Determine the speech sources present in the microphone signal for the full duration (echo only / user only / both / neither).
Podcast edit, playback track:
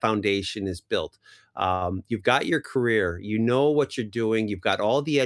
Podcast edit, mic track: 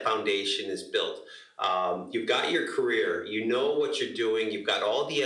echo only